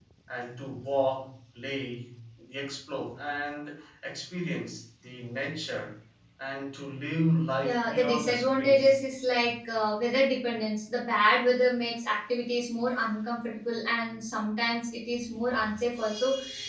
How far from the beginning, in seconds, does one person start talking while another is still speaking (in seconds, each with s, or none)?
7.6 s